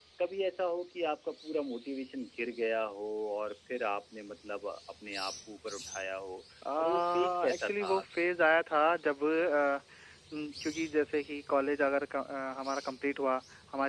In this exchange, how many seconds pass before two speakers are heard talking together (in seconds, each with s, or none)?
6.6 s